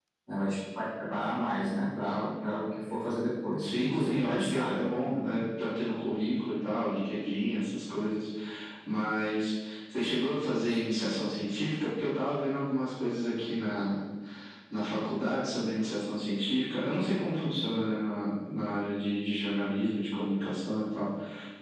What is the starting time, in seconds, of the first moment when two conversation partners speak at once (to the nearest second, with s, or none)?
4 s